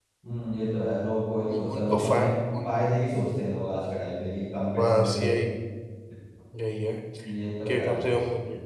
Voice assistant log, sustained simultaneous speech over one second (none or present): present